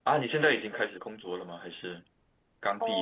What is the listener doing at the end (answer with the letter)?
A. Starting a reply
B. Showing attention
A